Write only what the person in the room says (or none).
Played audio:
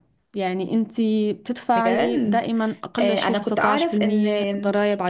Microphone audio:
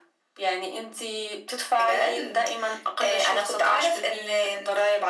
none